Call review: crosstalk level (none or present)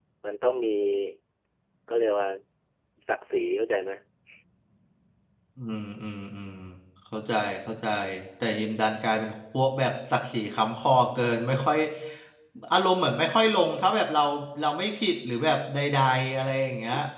none